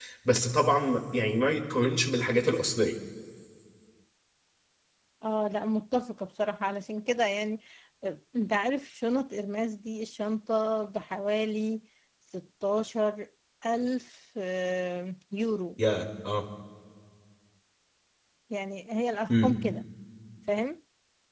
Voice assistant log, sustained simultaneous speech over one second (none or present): none